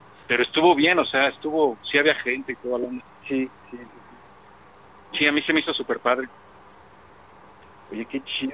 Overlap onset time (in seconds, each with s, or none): none